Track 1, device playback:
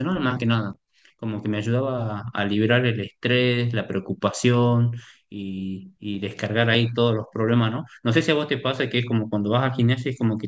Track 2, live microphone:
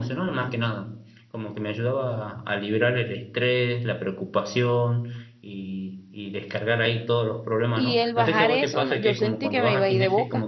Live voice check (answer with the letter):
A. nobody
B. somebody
B